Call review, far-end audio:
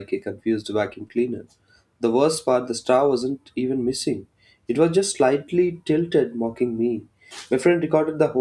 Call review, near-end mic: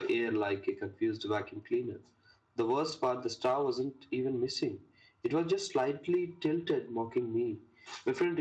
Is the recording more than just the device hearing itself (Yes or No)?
No